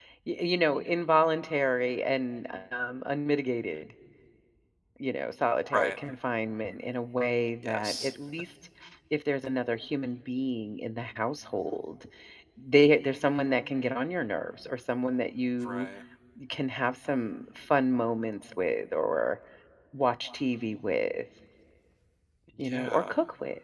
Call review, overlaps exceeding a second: none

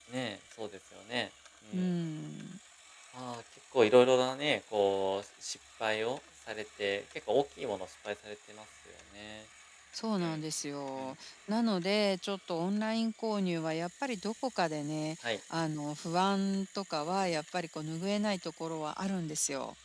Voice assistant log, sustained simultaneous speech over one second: none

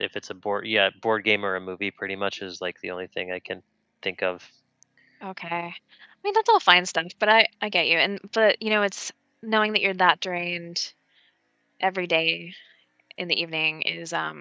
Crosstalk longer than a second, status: none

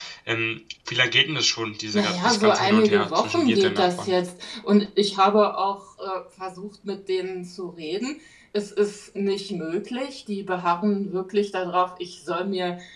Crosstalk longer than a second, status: present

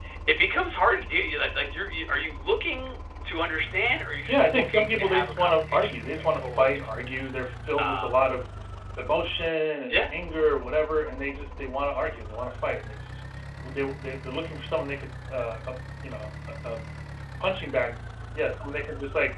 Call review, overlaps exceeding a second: present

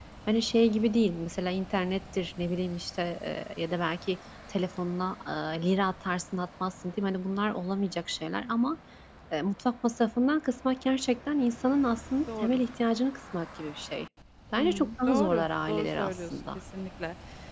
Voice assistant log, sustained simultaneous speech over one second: present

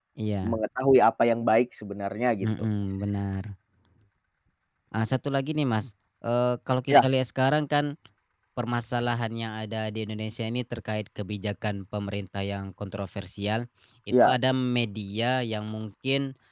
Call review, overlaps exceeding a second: none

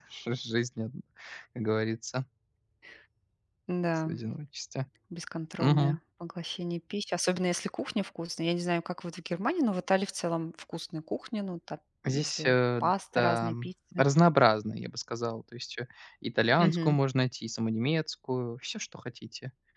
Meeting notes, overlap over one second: present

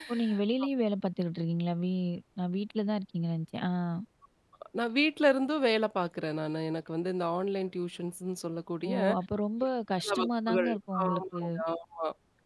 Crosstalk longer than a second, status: present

